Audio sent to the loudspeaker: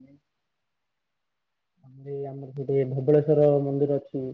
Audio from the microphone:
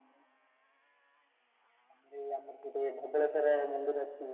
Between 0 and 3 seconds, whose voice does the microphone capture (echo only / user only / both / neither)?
echo only